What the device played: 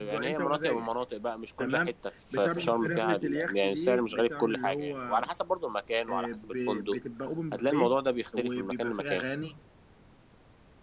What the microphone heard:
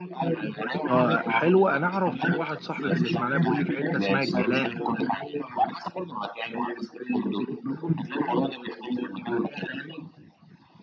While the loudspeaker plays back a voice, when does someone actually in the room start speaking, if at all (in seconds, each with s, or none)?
0.9 s